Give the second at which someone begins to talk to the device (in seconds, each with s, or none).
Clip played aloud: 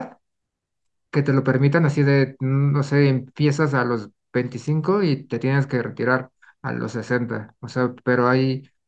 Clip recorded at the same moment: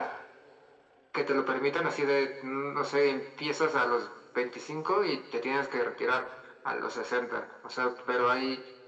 none